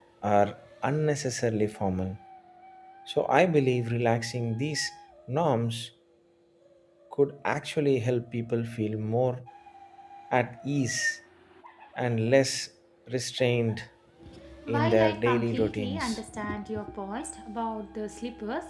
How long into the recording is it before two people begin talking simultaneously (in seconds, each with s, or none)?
14.7 s